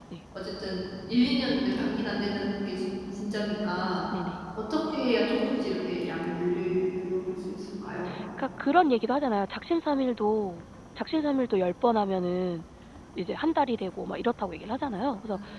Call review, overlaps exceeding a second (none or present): none